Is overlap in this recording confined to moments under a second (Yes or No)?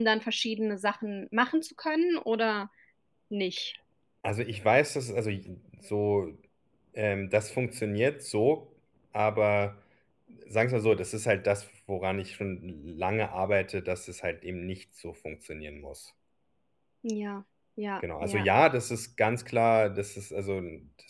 Yes